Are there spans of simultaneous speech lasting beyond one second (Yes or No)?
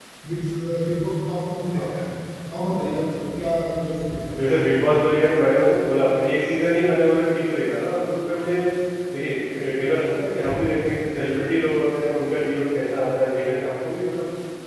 No